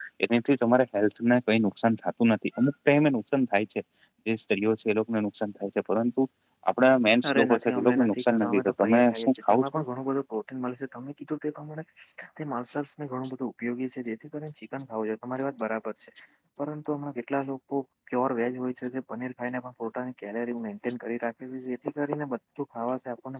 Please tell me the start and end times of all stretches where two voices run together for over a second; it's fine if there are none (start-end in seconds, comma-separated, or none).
7.3-9.8